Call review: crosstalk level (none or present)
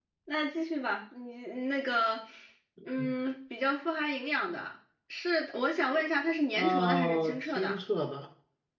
present